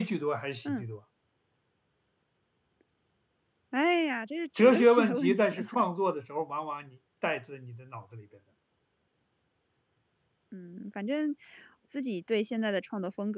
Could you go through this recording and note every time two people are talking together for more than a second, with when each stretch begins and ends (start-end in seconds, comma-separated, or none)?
4.6-5.8